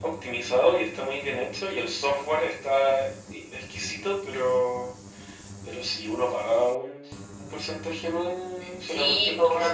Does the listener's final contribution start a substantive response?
Yes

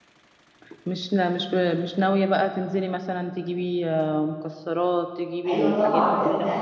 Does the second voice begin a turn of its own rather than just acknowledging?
Yes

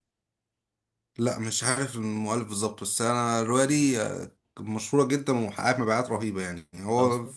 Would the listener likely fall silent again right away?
Yes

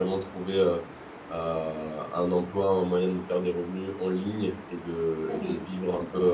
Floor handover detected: No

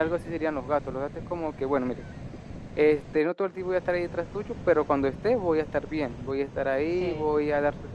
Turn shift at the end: No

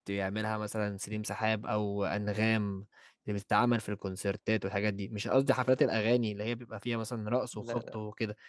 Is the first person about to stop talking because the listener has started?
No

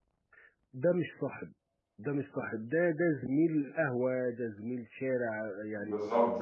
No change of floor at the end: Yes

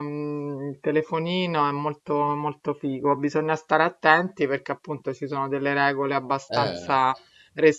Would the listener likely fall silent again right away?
Yes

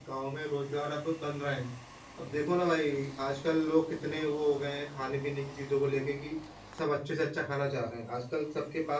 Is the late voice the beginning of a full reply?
No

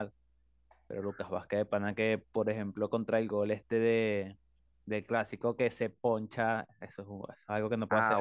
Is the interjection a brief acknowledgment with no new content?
No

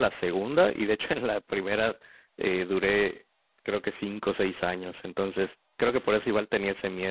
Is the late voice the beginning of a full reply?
No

